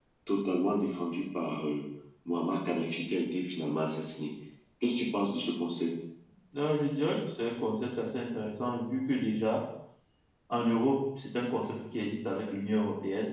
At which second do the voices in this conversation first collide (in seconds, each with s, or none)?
none